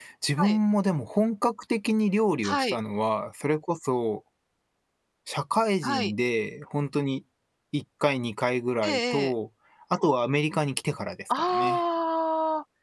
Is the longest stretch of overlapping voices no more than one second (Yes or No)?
Yes